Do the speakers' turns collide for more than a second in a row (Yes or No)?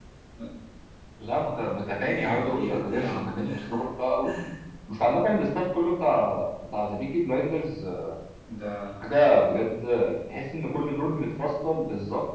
Yes